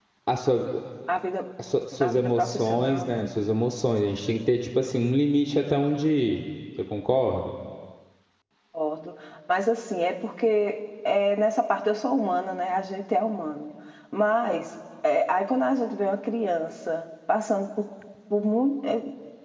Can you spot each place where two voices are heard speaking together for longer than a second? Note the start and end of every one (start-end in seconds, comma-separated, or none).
2.0-3.3